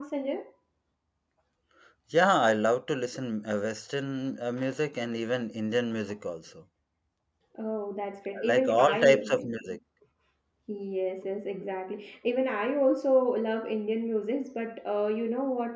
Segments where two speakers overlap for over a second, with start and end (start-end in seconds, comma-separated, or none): 8.3-9.6